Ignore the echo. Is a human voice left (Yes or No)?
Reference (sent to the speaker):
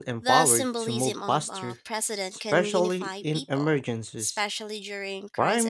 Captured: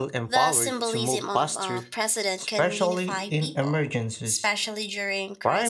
No